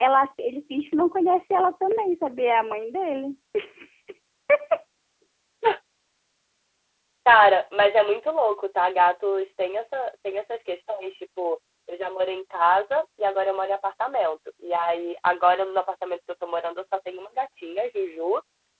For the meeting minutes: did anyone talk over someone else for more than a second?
No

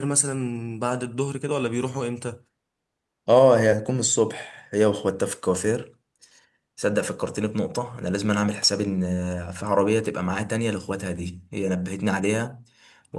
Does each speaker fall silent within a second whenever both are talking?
Yes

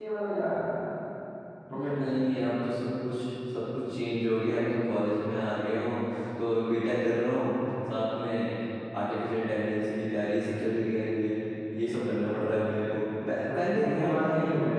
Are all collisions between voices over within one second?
No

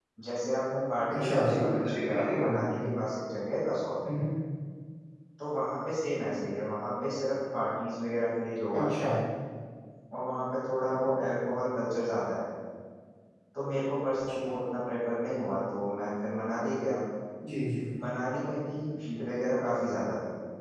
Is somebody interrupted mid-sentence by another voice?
Yes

